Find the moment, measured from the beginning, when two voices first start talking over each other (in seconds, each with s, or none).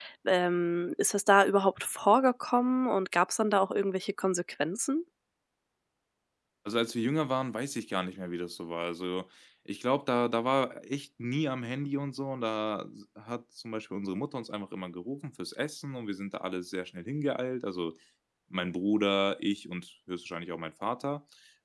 none